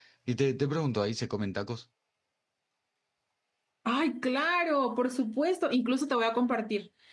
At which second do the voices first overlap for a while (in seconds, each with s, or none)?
none